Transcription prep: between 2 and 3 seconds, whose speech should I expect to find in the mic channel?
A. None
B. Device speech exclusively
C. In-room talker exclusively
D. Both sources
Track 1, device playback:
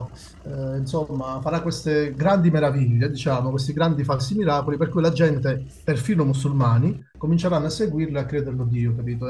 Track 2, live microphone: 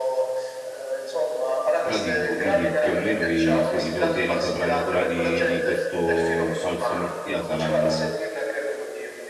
D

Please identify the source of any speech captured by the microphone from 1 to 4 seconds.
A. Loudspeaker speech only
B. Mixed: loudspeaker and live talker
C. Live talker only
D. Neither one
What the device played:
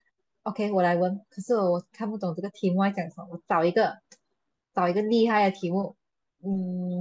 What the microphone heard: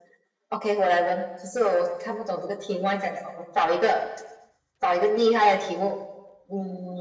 A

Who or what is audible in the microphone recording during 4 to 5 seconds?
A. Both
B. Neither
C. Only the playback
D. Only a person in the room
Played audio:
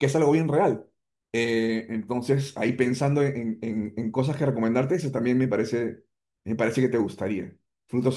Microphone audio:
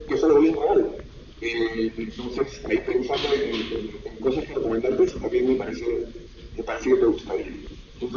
C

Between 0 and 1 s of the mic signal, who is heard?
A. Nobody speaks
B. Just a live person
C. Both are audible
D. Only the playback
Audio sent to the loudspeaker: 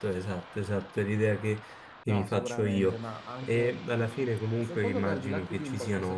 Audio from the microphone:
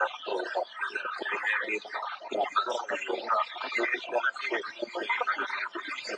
D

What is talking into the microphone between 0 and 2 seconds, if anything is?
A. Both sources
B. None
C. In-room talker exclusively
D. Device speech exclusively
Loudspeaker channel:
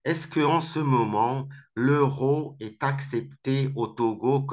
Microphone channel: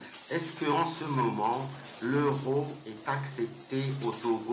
D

